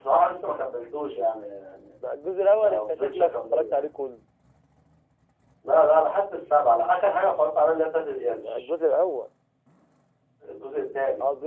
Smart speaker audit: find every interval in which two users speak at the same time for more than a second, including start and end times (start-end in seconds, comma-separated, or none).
2.6-3.9